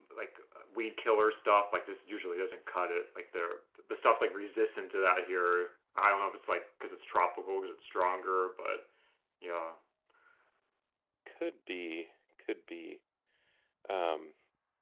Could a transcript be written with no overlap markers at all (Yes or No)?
Yes